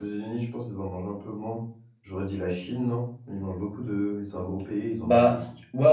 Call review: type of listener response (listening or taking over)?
taking over